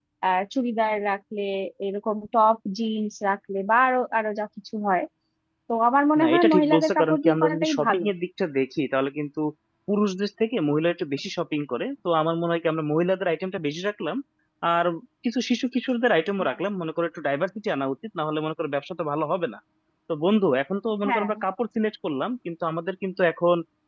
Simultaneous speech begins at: 6 s

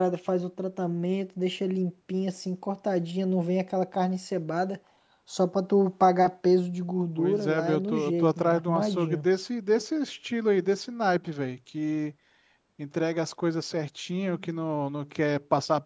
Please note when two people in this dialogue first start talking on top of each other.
7 s

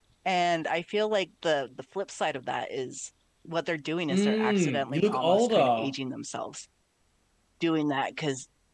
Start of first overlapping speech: 4 s

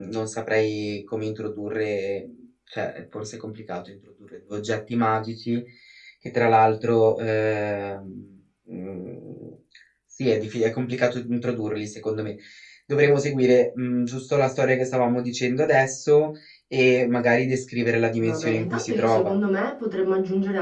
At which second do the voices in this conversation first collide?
18 s

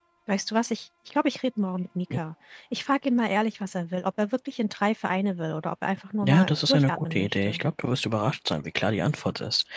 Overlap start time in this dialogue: 6 s

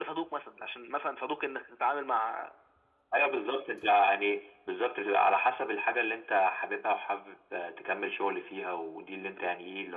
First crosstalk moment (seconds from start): none

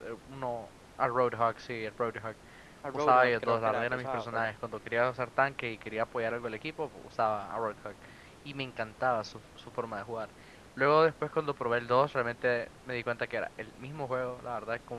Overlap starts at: 3 s

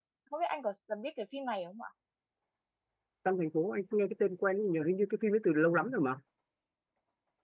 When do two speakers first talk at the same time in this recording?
none

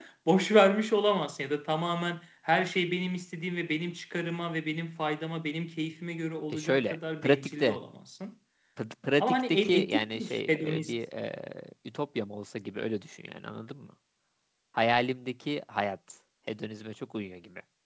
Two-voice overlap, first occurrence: 7 s

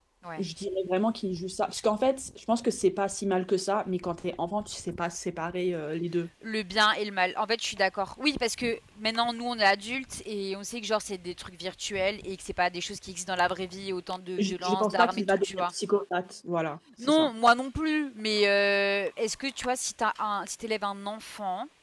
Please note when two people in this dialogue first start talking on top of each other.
14 s

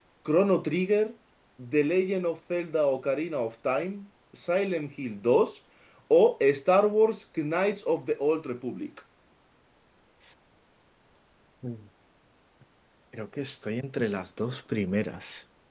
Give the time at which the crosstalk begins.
none

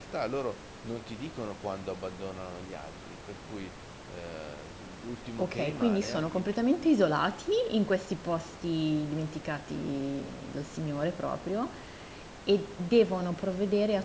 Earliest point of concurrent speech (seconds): 5 s

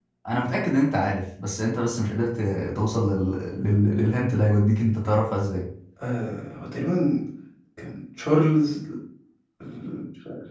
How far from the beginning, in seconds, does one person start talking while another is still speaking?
none

